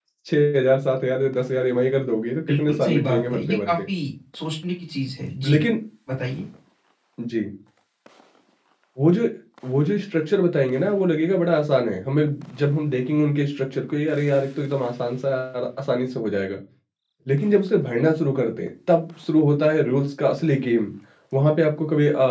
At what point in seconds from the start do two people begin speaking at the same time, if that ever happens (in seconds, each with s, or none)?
2.5 s